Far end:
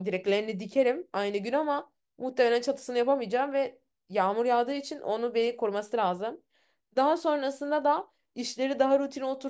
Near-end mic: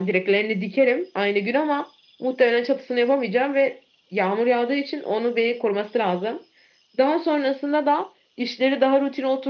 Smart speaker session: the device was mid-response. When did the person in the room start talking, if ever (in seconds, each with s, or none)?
none